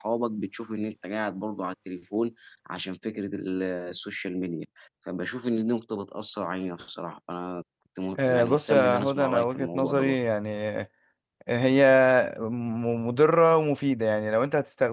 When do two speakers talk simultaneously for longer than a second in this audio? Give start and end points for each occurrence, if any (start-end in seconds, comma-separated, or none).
8.2-10.1